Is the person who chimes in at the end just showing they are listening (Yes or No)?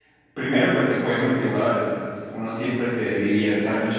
Yes